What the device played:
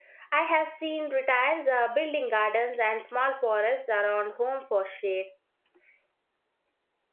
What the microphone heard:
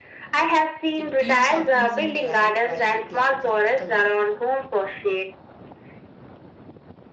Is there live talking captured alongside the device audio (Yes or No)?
Yes